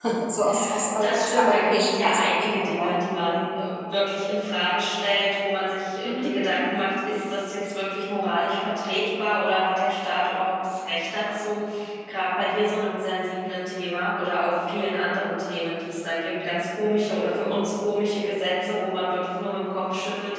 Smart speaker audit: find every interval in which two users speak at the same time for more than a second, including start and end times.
1.0-2.9

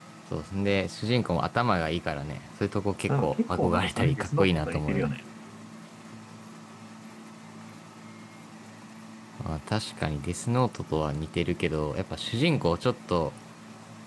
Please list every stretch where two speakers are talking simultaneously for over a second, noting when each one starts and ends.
3.1-5.1

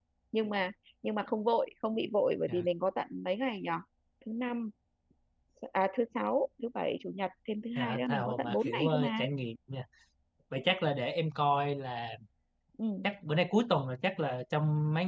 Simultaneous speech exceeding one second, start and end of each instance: 7.8-9.2

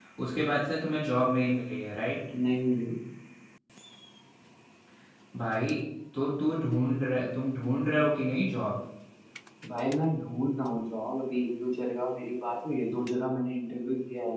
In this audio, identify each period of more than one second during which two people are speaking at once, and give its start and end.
none

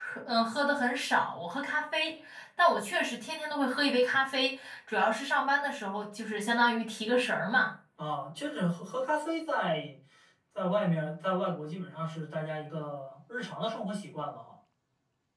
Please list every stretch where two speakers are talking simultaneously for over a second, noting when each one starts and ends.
none

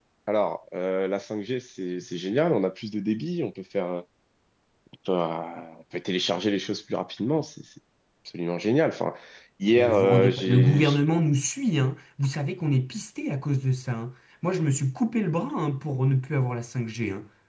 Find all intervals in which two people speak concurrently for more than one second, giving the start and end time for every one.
9.8-11.0

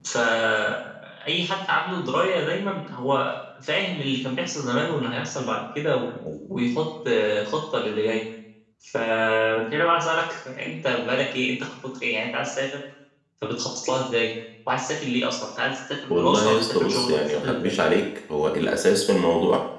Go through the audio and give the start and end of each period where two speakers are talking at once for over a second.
16.1-17.8

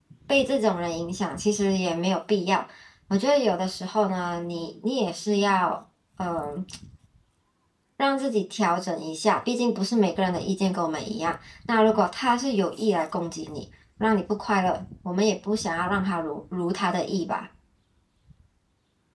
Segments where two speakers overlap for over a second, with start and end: none

